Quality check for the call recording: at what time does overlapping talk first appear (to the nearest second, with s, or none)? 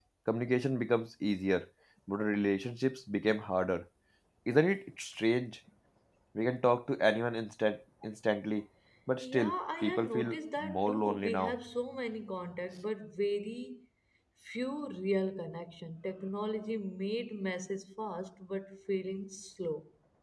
9 s